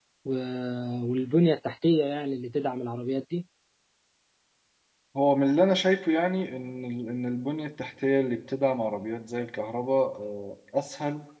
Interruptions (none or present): none